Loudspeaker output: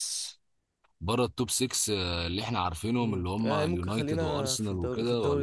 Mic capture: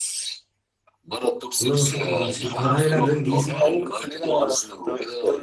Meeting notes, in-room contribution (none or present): present